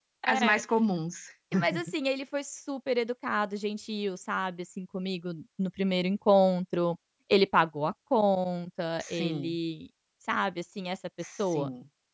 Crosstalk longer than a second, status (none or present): none